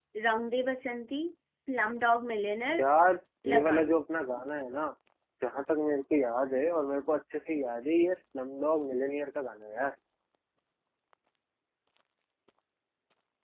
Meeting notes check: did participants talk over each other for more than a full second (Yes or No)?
No